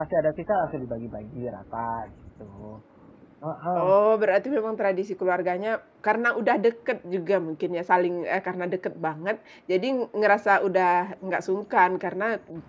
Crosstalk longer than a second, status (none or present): none